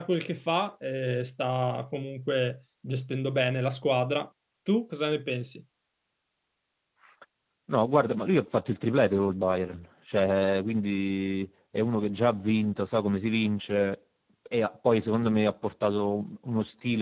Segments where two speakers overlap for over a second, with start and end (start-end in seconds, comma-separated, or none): none